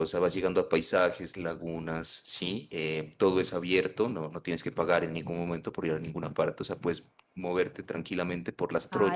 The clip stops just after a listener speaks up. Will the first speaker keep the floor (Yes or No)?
No